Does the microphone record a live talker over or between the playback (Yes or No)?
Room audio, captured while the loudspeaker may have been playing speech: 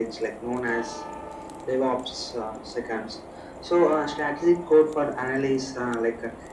No